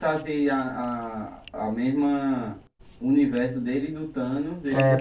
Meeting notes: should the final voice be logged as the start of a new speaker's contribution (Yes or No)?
Yes